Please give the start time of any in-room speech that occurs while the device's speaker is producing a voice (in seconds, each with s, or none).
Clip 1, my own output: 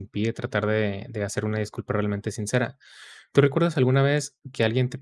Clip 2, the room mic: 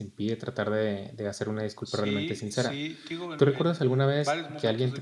1.8 s